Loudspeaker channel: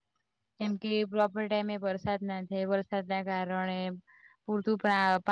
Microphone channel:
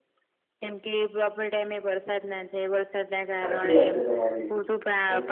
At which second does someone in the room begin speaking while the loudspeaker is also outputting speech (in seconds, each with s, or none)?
3.4 s